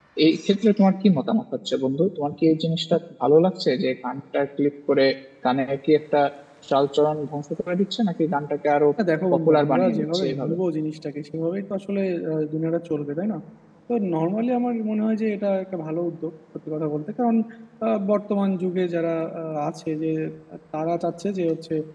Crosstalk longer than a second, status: present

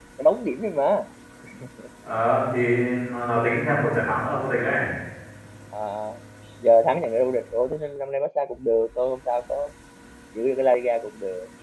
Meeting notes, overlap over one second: none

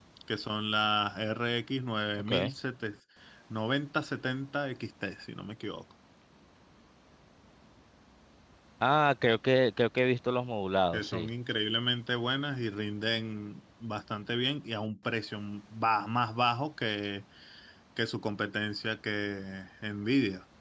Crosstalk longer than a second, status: none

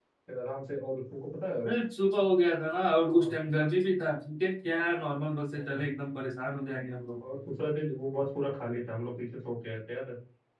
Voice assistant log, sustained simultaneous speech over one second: none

